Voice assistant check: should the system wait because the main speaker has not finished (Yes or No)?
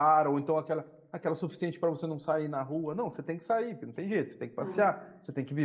Yes